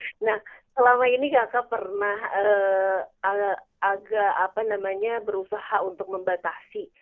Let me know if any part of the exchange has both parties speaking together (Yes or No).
No